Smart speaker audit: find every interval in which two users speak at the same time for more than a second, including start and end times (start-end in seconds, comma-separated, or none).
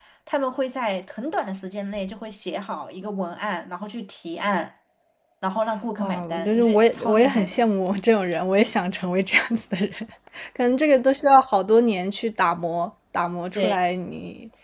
6.0-7.6